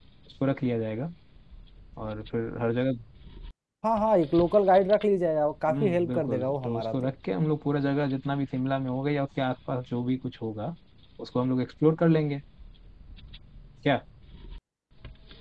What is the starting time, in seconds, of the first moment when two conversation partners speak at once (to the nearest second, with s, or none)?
6 s